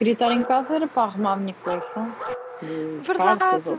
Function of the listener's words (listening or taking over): taking over